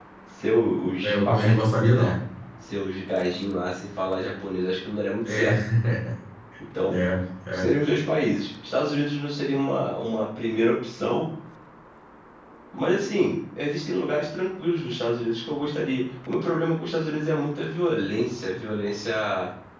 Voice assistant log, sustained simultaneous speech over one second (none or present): none